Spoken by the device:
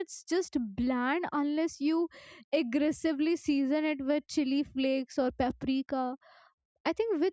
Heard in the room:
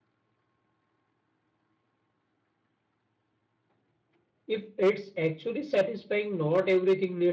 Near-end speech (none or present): present